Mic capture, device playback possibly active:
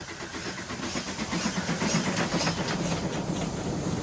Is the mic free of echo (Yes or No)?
Yes